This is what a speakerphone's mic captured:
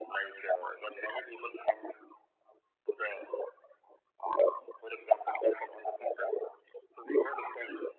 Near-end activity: none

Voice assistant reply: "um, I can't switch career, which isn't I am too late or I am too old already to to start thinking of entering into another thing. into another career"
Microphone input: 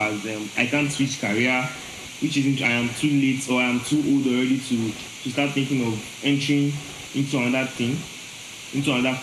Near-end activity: none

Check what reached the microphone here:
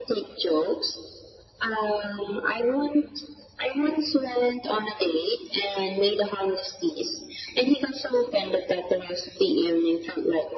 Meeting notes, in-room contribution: none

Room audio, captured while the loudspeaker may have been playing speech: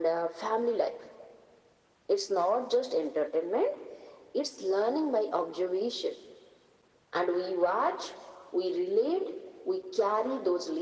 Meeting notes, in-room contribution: none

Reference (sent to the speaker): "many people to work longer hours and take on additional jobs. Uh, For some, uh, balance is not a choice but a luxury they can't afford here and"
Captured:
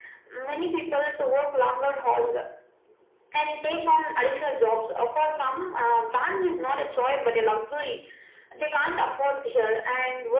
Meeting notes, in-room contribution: none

